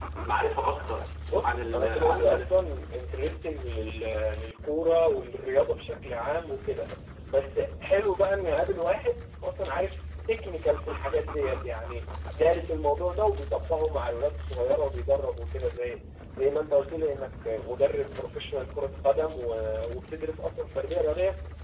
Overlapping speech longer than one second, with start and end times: 1.4-2.7

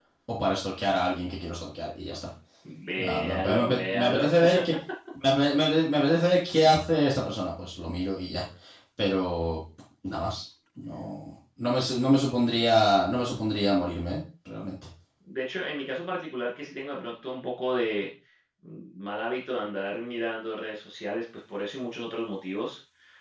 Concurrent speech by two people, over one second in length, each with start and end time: 3.0-4.2

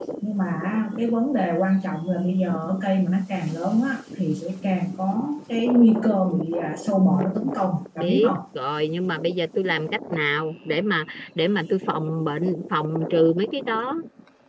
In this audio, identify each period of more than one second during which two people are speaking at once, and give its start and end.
none

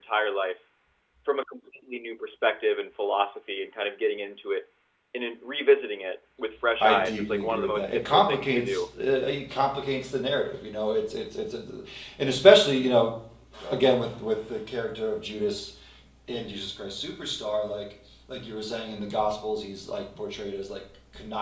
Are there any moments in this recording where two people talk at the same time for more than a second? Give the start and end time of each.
6.8-8.6

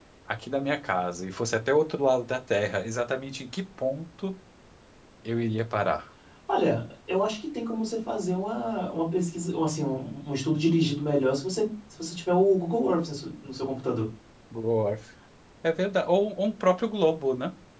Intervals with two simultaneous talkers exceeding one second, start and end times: none

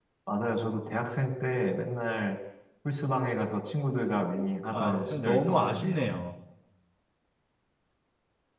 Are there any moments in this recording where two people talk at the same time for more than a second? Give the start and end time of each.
4.7-6.1

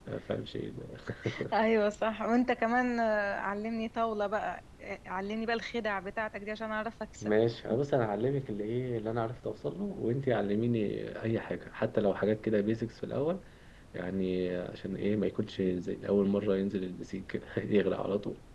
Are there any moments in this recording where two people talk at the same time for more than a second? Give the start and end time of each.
none

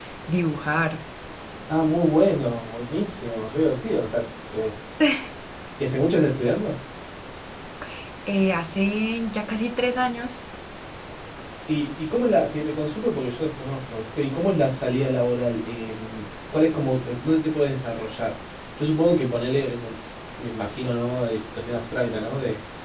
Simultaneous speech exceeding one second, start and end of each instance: none

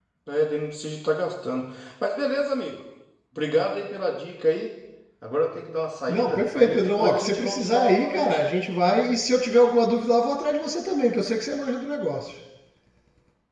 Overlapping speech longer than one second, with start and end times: 6.1-8.4

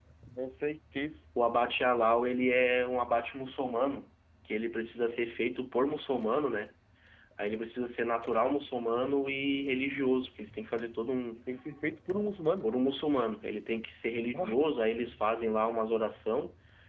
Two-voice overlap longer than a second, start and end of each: none

